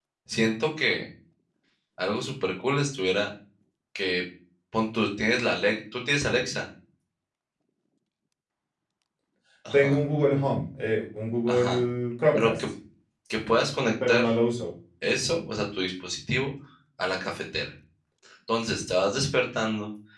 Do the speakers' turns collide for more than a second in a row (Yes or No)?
No